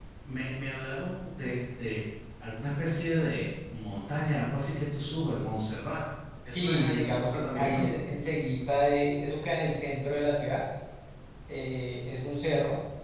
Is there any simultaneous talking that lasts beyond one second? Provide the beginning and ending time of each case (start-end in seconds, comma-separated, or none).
6.5-7.8